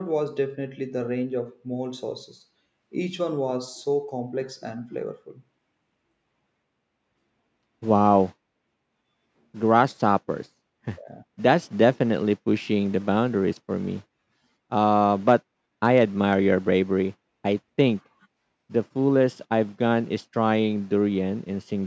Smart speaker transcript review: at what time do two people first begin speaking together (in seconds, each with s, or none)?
none